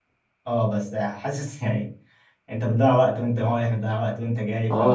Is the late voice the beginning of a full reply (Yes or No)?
Yes